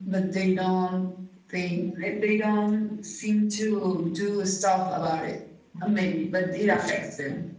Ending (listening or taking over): listening